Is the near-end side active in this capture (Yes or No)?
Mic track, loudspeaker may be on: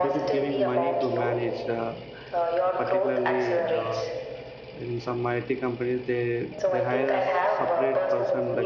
Yes